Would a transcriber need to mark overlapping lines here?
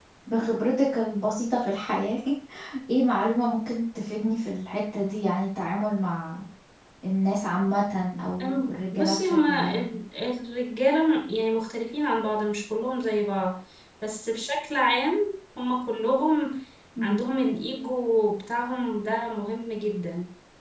Yes, from 8.4 s

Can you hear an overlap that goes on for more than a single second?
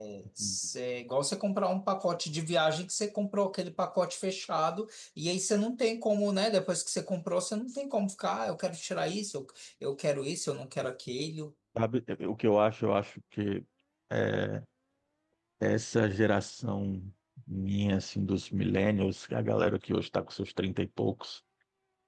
No

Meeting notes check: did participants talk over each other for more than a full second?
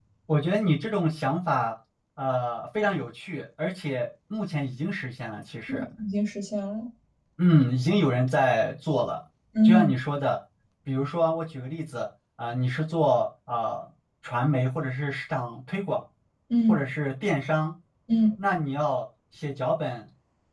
No

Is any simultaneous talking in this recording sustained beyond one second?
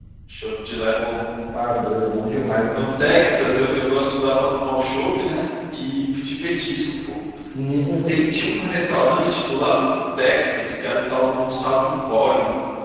No

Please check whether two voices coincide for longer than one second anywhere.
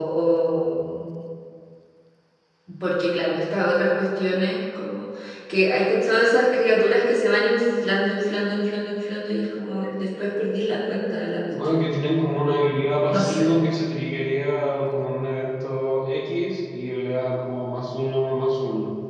No

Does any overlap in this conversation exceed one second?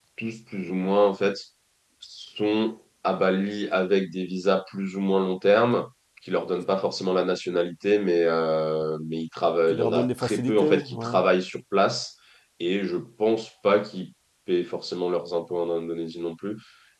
Yes, from 9.7 s

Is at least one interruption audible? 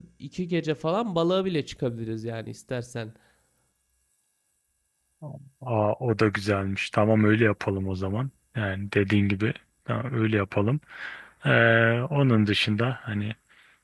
No

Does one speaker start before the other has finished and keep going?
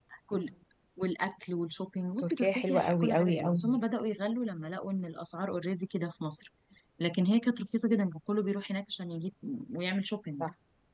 Yes, from 2.2 s

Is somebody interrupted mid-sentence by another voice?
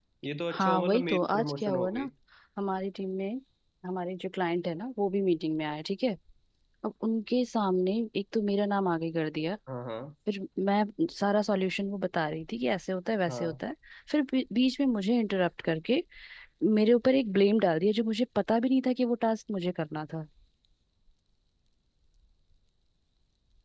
Yes, from 0.5 s

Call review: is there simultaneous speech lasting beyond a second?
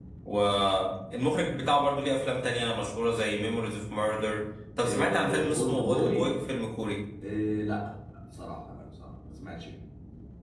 Yes, from 4.8 s

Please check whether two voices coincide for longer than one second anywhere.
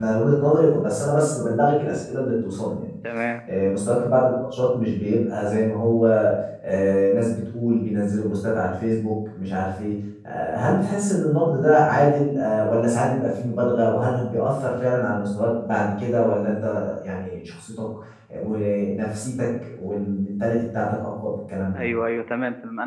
No

